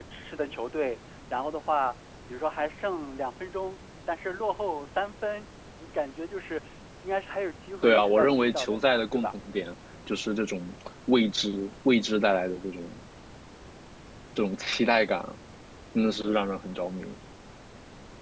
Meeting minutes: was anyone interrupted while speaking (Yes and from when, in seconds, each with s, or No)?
Yes, from 7.8 s